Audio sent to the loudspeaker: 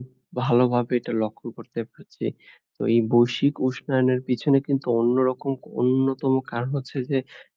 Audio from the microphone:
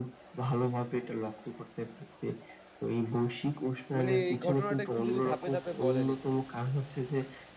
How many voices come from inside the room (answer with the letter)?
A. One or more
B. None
A